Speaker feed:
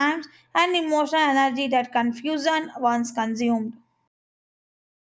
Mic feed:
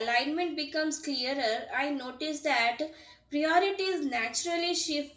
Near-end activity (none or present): present